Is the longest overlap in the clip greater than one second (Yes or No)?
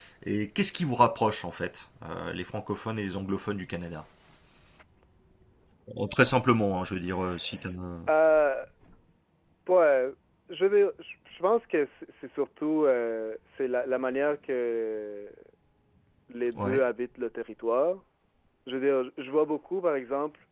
No